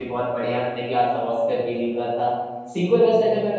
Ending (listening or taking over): listening